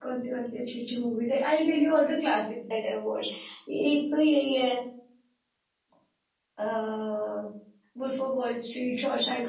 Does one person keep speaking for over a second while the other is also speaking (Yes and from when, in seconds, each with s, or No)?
No